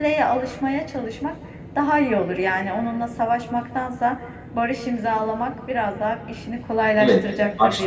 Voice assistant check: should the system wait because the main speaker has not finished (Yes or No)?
No